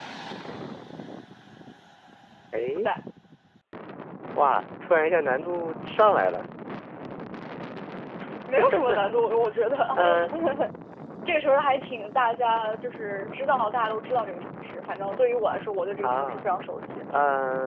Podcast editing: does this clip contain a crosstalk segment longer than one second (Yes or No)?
No